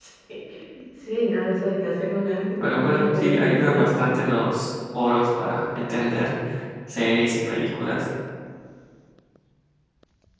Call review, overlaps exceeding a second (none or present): present